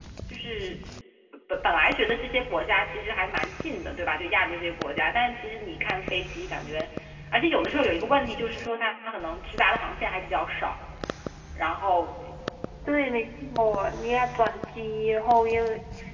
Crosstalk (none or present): none